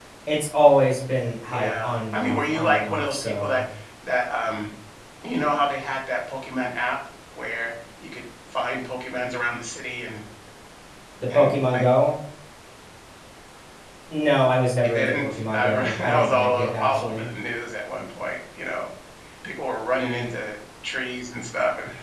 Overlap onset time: 1.5 s

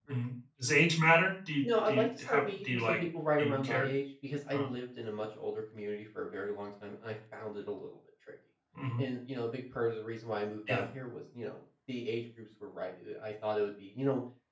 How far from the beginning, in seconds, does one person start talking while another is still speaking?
1.6 s

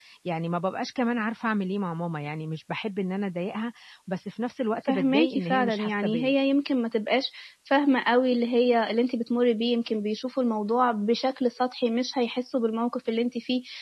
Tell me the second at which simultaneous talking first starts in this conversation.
4.8 s

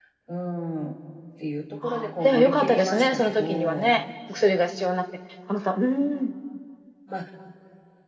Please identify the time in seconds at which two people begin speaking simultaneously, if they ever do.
1.8 s

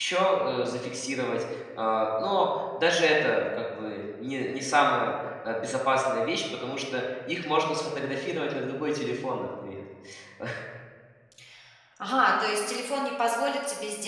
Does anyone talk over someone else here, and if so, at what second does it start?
none

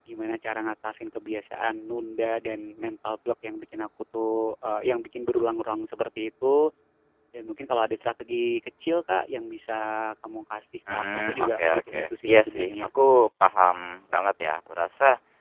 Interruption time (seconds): 10.9 s

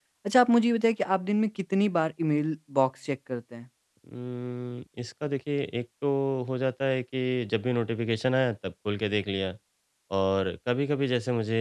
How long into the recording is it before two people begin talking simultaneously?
none

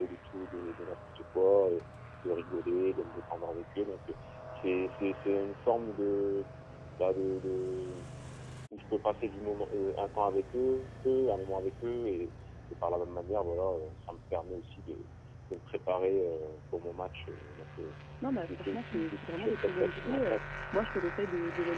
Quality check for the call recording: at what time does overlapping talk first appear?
18.2 s

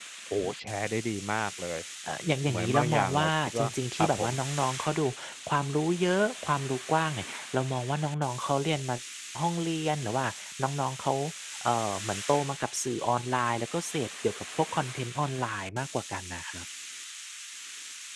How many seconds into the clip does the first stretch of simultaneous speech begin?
2.5 s

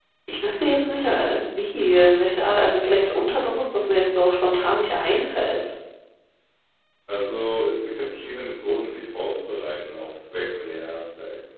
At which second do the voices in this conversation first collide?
none

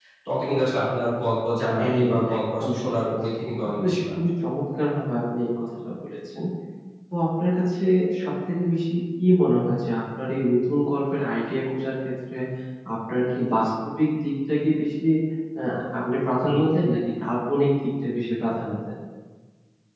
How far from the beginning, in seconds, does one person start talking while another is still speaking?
1.8 s

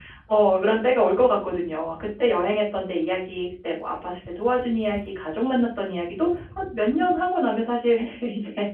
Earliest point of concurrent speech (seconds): none

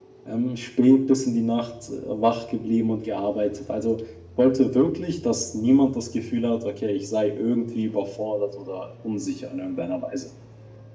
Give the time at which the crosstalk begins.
none

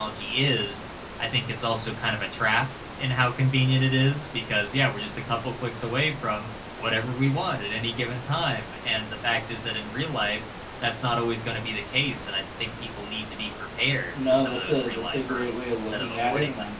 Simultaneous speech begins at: 14.1 s

